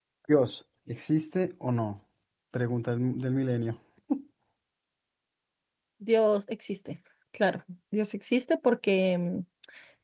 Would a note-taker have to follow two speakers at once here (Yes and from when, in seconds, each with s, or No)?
No